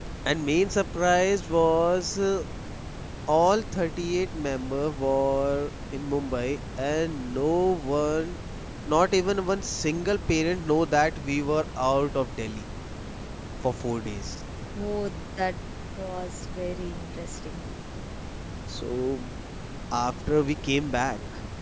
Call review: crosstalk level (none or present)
none